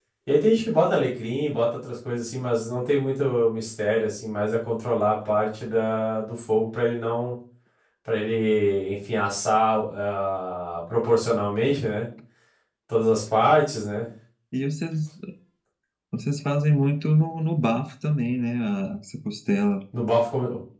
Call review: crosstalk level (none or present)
none